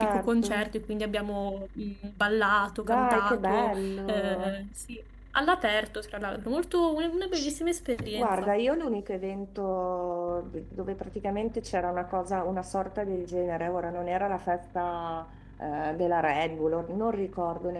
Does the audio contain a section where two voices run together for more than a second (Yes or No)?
Yes